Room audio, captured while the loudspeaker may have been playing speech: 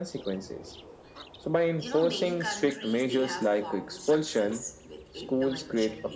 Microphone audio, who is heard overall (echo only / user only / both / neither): both